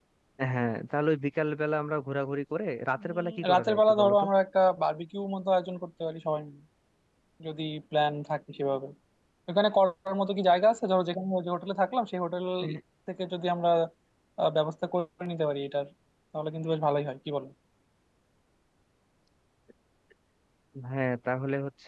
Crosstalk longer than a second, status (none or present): present